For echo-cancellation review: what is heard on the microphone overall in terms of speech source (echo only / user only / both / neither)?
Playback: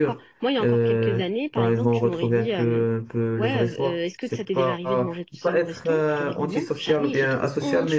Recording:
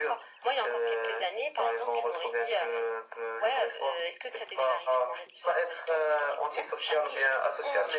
echo only